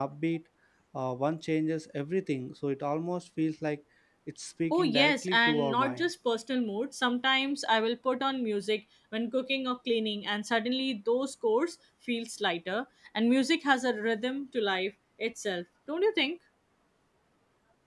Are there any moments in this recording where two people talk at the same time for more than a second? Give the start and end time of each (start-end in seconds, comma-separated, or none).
4.7-6.1